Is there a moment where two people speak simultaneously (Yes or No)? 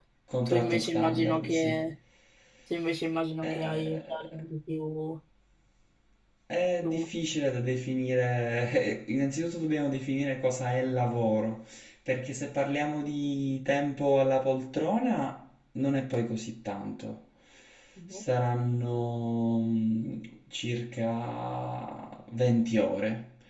Yes